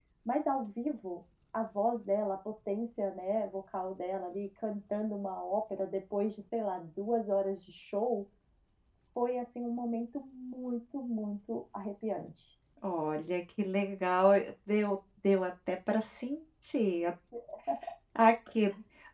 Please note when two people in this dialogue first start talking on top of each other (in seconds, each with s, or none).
none